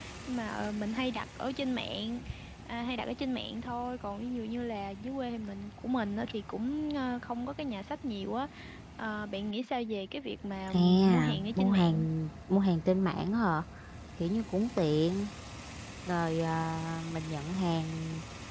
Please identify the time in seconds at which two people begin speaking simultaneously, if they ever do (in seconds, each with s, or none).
10.7 s